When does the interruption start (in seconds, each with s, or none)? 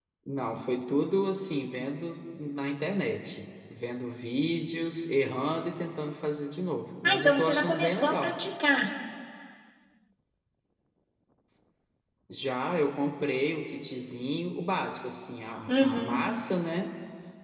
7.0 s